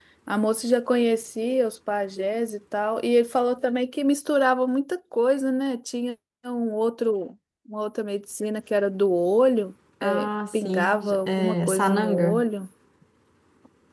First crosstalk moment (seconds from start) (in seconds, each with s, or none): 10.0 s